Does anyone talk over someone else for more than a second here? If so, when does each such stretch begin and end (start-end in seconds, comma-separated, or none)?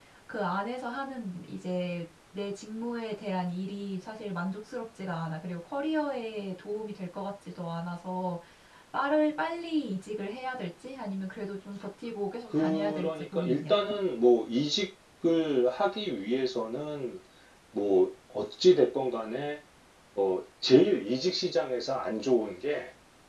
12.5-13.7